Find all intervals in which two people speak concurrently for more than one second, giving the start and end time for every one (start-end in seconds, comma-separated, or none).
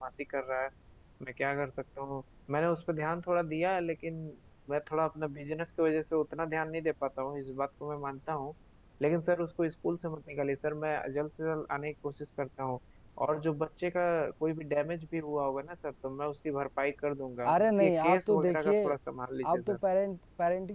17.5-18.9